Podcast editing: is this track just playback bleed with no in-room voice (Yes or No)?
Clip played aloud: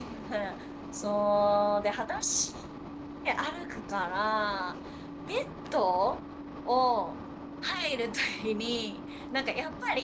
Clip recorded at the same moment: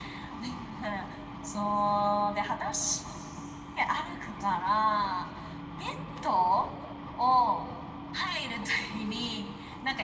Yes